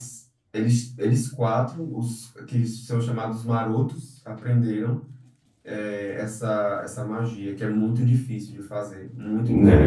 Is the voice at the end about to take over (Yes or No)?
Yes